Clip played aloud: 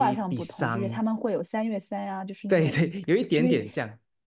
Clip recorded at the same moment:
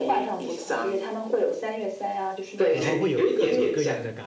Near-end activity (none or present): present